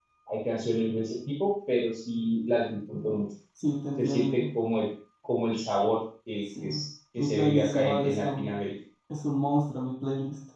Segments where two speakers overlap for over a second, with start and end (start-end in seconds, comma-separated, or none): 7.2-8.5